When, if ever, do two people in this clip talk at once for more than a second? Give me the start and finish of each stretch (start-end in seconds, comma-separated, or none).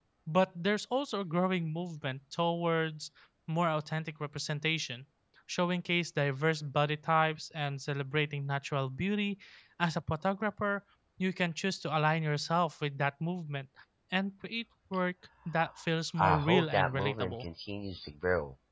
16.2-17.4